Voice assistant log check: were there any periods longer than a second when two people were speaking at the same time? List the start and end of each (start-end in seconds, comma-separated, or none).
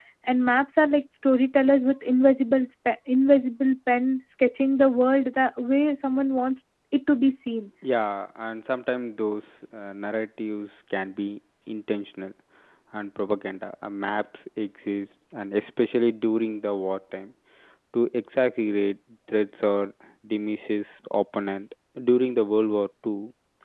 none